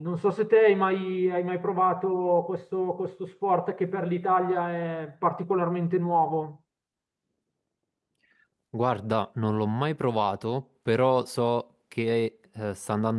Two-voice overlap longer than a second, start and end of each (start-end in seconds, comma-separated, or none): none